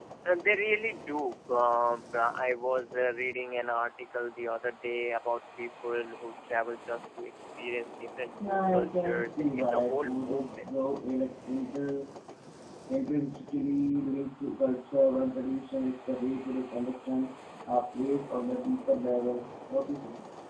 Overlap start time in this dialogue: 8.4 s

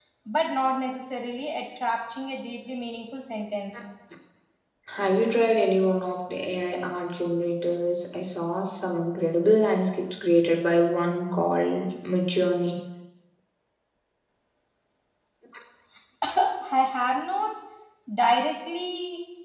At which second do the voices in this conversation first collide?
none

